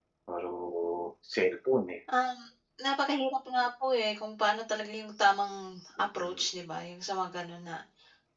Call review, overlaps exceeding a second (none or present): none